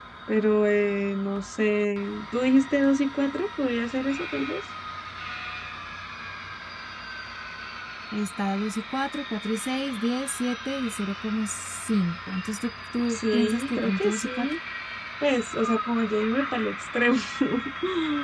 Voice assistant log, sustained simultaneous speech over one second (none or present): present